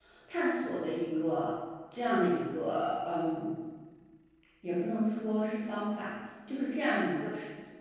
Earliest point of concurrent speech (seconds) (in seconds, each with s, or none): none